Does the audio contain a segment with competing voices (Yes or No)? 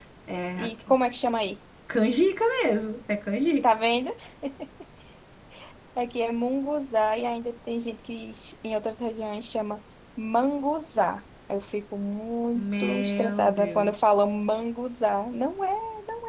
Yes